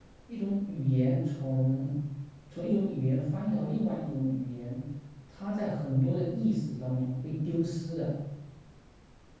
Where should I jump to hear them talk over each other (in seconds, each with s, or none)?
none